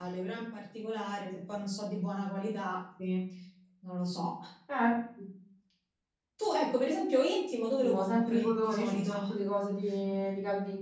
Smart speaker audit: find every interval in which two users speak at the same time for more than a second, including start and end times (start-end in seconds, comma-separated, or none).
7.8-9.2